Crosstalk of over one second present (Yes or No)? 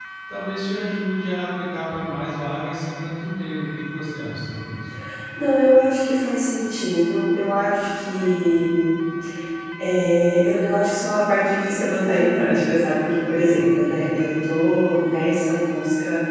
No